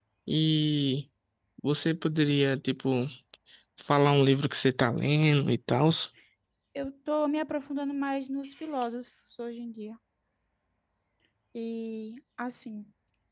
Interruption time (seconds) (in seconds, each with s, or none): none